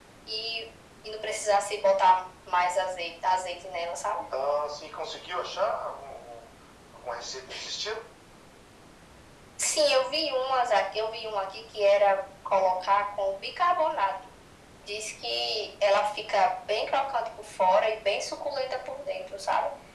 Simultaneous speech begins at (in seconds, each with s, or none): none